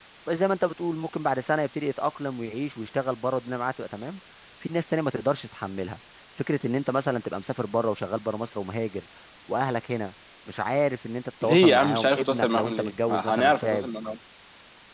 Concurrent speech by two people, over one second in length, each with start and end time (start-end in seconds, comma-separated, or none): 11.4-13.9